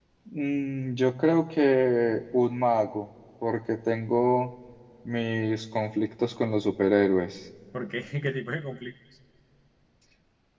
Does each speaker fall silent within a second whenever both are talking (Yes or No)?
Yes